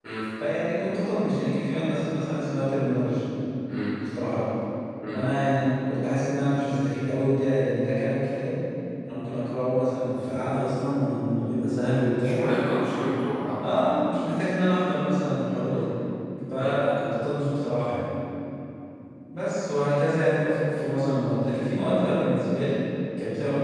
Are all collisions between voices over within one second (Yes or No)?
Yes